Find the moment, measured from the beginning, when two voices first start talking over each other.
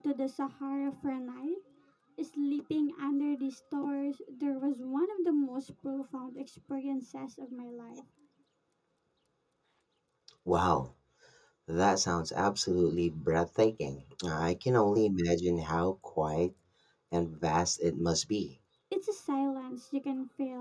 none

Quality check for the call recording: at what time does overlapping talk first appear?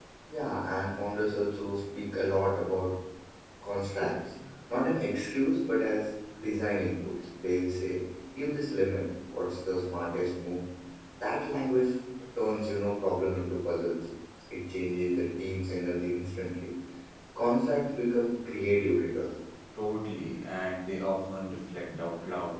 none

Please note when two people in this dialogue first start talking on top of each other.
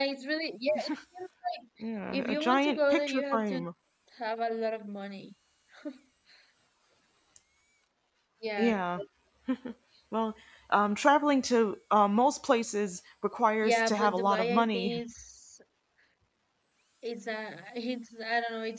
2.1 s

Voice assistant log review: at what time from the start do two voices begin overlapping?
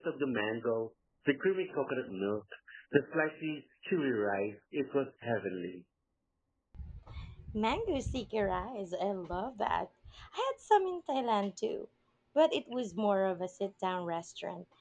none

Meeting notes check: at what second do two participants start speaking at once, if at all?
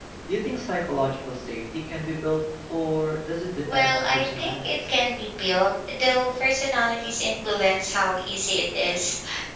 3.6 s

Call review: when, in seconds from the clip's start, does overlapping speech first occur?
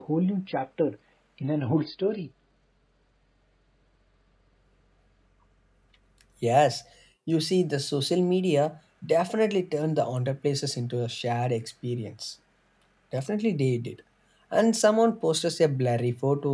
none

